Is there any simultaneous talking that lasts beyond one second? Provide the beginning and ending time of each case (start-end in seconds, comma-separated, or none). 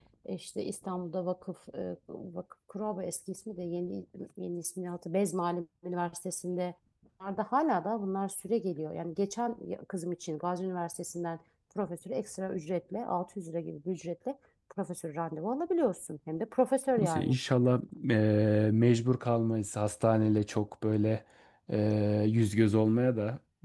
none